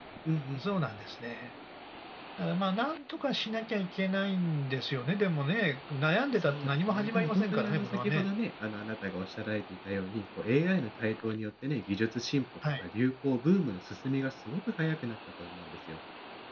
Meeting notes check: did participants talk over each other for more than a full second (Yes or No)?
Yes